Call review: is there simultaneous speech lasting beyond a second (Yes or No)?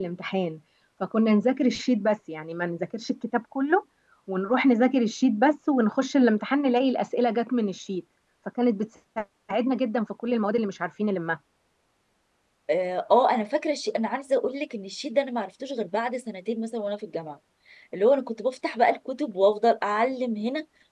No